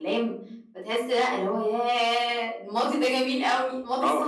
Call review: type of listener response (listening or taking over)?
taking over